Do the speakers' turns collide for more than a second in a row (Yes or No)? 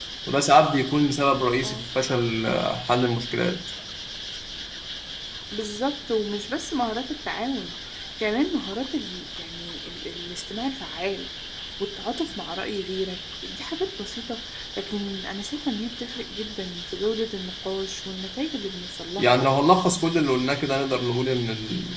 No